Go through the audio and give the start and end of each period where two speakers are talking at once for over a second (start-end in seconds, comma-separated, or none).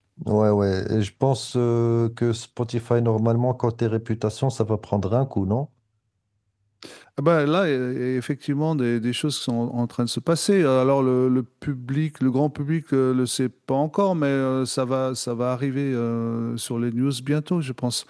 none